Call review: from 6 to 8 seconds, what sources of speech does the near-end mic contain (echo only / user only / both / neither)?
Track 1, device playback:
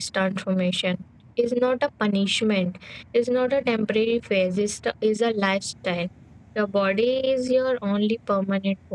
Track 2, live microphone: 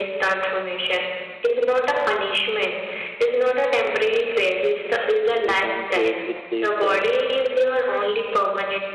both